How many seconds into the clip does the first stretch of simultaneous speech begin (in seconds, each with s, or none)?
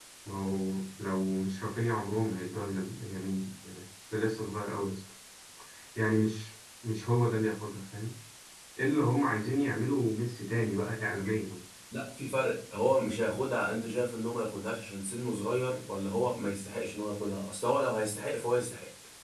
none